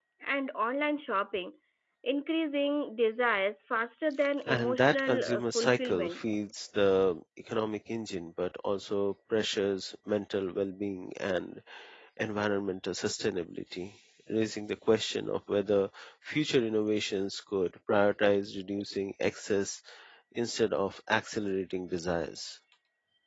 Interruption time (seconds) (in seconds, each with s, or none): 4.5 s